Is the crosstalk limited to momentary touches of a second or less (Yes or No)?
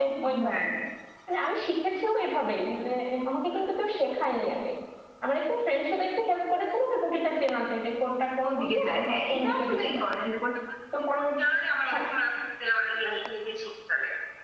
No